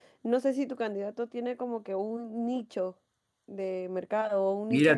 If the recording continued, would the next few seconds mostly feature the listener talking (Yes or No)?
Yes